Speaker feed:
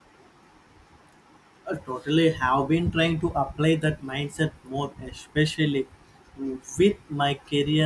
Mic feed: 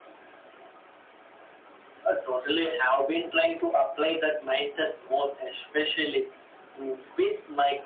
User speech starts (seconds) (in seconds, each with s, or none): none